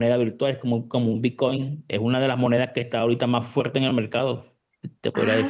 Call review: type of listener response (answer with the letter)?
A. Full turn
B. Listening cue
A